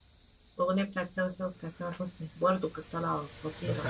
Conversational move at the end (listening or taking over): taking over